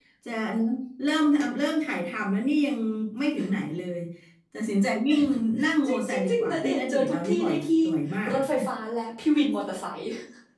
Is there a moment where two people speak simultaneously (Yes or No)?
Yes